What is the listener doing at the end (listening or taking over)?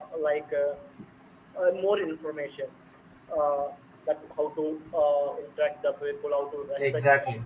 listening